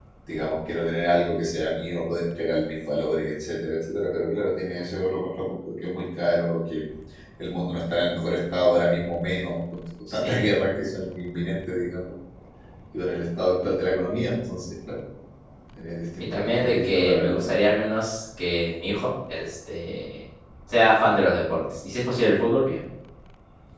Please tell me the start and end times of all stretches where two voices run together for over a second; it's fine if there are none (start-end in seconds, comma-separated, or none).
16.2-17.6